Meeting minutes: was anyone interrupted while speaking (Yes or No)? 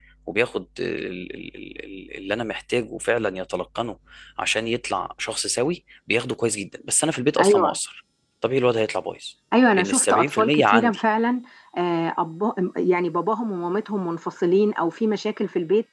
Yes